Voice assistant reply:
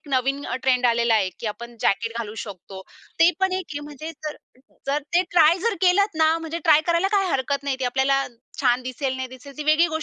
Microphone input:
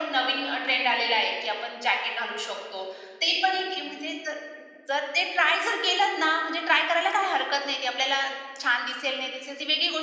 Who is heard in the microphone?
echo only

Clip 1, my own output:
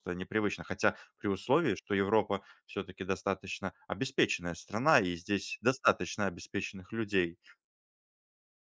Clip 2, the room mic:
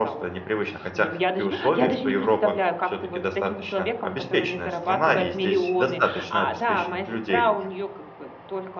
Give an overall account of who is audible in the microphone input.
both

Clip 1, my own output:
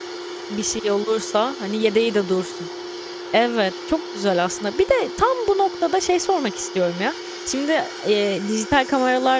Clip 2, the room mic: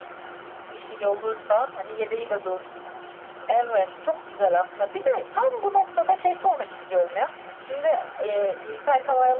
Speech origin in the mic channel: echo only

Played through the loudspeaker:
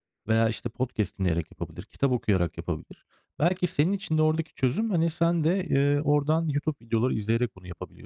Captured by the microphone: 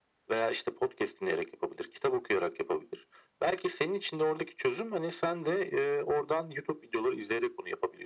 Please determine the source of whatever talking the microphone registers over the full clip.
echo only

